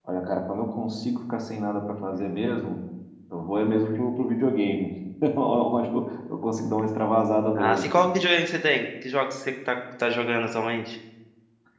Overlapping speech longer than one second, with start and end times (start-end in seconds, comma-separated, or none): none